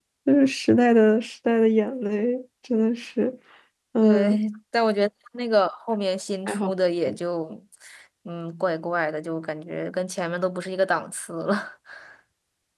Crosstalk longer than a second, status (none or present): none